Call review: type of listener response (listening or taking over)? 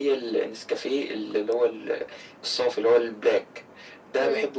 listening